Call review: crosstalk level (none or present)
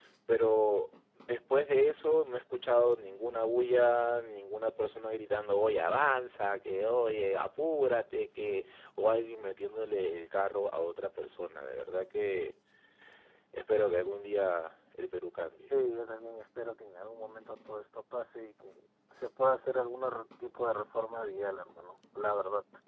none